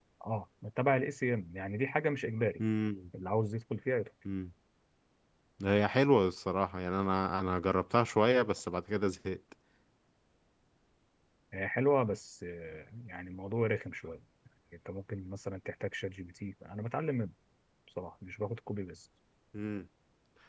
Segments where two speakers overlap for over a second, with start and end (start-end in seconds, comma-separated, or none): none